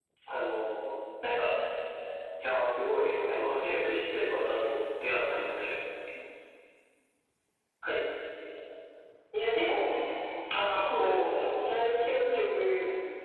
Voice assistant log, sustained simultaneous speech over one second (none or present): present